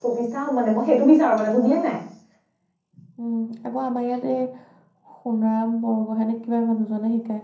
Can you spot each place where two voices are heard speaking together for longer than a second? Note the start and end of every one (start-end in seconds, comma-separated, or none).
none